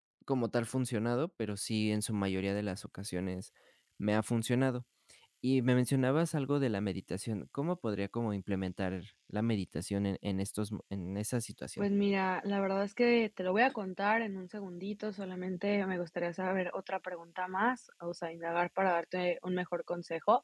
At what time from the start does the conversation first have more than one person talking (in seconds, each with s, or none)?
none